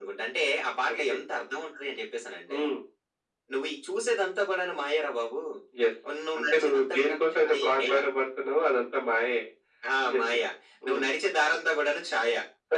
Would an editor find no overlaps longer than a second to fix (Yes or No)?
No